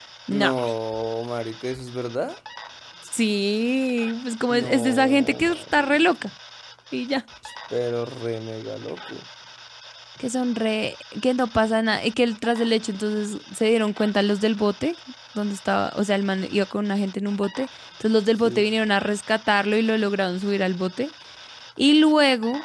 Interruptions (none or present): present